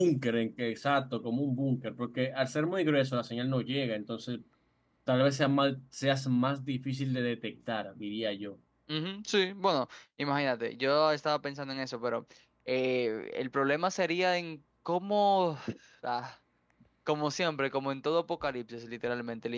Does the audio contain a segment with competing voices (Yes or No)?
No